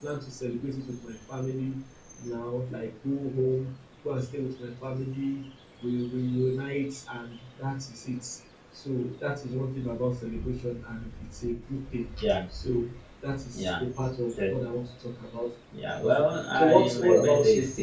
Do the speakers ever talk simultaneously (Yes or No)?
Yes